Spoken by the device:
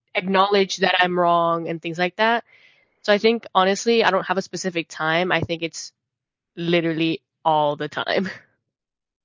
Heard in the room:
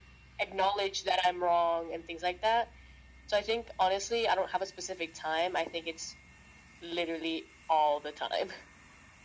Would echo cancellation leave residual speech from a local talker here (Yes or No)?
No